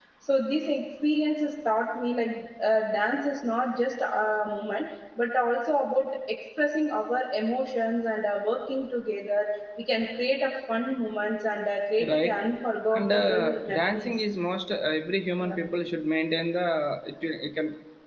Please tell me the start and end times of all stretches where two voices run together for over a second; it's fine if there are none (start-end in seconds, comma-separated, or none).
12.9-14.2